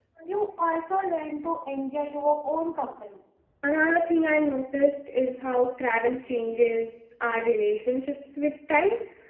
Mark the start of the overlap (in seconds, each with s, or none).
none